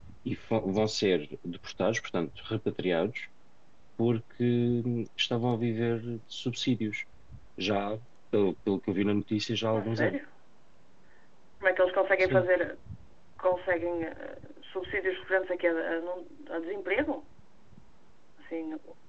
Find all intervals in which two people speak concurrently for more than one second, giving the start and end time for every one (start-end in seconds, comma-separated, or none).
none